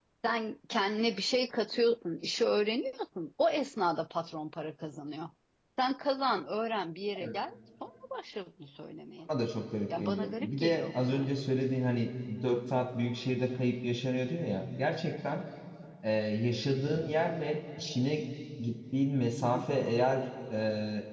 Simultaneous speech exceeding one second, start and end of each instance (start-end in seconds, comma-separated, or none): 10.0-11.3